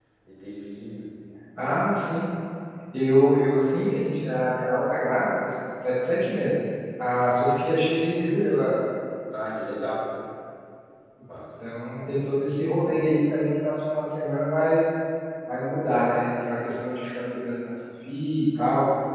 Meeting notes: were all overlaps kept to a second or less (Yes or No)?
Yes